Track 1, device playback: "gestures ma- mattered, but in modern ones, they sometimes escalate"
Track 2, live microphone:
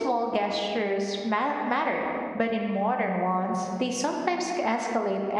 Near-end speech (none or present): none